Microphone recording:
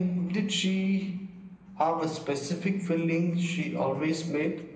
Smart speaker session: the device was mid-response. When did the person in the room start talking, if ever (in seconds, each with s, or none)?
none